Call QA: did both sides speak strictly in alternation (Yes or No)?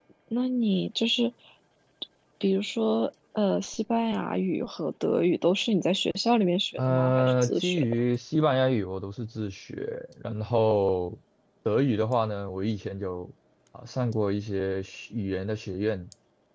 No